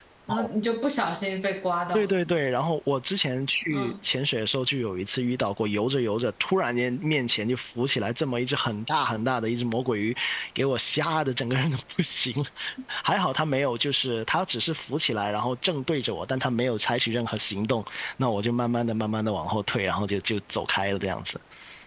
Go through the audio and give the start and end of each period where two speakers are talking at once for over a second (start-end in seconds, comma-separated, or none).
none